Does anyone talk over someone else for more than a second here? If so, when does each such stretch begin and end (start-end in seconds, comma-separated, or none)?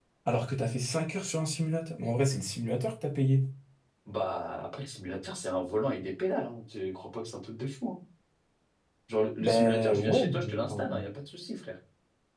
9.4-11.0